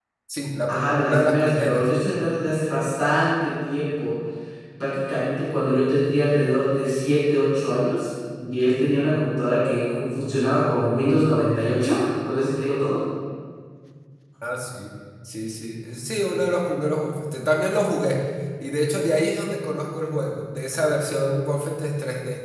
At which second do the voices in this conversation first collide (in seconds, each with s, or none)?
0.7 s